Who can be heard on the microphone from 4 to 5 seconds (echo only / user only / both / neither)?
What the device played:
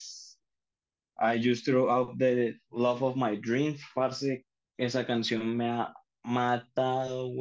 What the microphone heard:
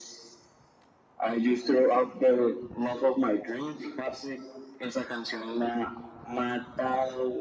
echo only